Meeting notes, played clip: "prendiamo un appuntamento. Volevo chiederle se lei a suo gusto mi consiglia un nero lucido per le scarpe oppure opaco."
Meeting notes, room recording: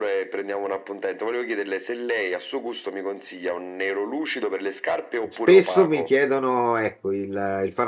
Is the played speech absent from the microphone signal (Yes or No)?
No